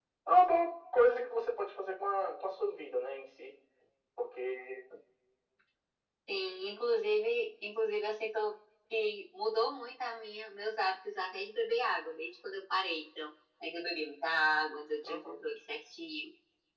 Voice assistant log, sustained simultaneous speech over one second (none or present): none